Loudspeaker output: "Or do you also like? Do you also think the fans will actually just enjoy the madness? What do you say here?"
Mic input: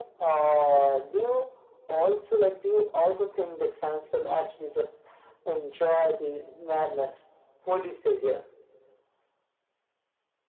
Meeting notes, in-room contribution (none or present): none